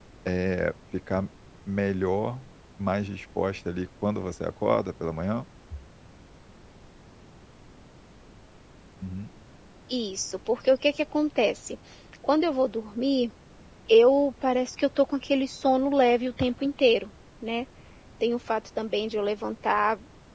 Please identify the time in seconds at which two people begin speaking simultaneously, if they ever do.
none

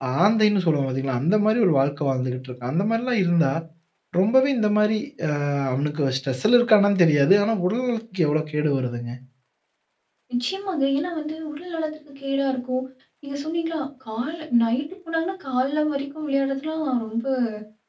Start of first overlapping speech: none

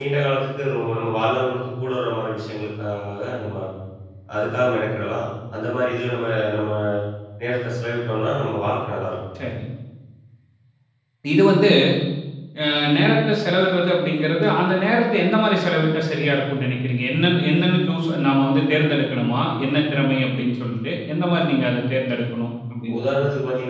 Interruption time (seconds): none

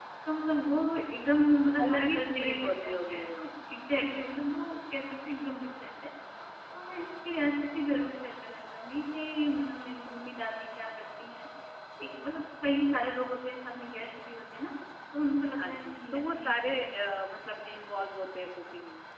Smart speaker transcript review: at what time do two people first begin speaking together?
1.9 s

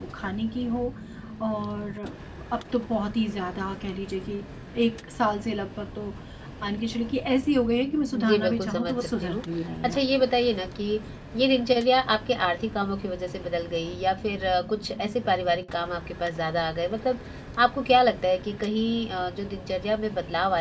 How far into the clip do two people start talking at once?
8.2 s

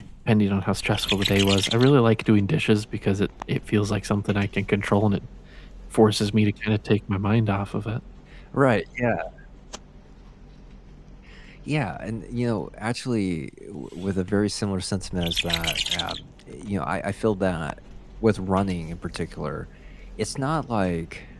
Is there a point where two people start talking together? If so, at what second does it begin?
none

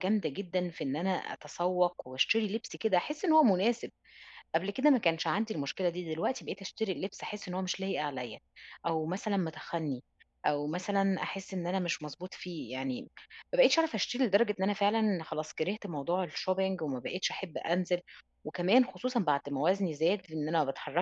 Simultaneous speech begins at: none

